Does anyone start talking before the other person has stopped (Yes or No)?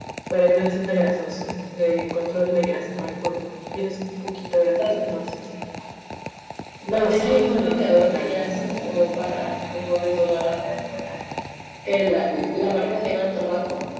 Yes